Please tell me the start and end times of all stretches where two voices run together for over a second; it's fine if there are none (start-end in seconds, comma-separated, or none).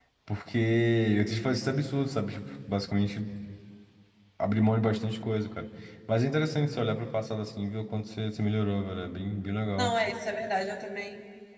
none